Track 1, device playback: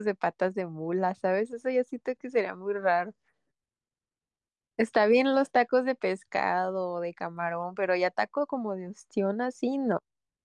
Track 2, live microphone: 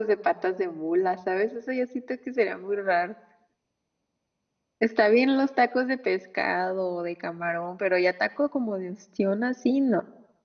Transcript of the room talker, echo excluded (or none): none